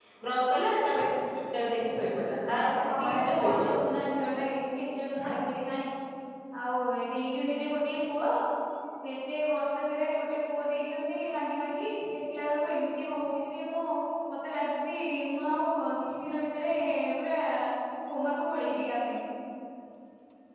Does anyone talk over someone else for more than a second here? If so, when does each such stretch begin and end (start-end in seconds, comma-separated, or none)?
2.5-3.8